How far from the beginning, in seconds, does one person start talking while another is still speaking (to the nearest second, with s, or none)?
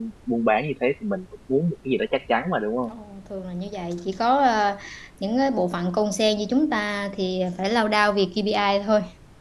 none